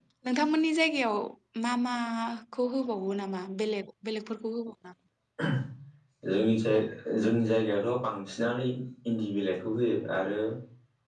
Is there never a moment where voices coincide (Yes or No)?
Yes